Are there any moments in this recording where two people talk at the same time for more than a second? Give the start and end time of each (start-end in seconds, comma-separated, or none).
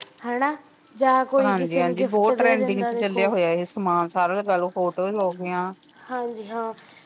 1.4-3.3